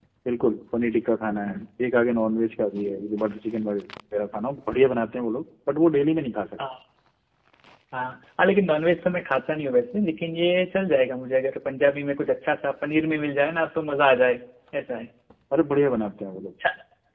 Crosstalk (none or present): none